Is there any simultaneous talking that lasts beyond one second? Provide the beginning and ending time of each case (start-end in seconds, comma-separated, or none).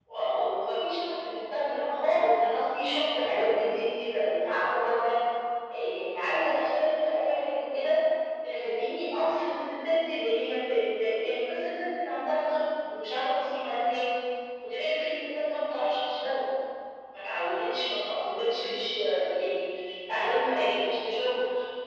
none